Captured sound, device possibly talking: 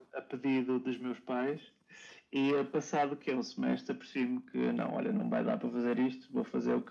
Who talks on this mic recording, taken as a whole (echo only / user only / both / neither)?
echo only